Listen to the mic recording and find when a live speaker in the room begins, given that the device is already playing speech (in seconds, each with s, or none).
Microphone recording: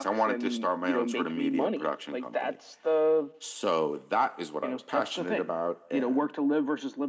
none